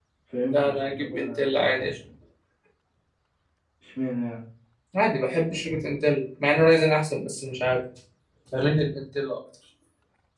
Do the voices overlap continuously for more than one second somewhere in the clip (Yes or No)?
Yes